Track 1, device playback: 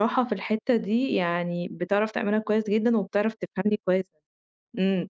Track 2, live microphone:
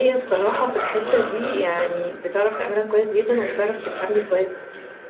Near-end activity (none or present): present